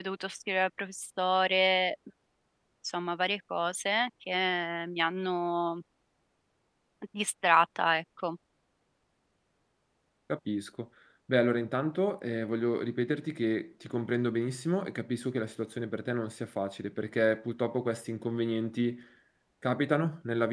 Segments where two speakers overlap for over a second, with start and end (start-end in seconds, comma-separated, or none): none